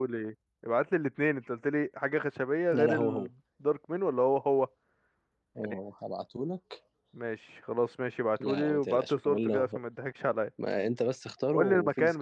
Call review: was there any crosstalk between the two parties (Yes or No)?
Yes